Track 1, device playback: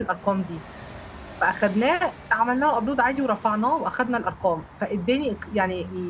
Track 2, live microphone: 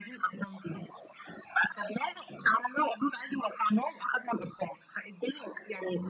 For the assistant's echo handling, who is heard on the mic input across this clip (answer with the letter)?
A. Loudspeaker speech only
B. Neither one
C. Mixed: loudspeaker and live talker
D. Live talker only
A